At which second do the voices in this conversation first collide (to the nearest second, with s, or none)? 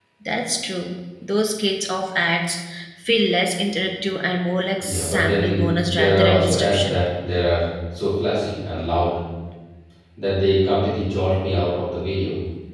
5 s